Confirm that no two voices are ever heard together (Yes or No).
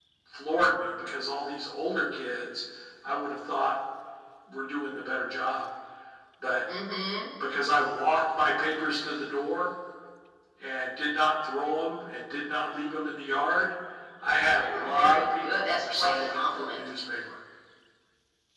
No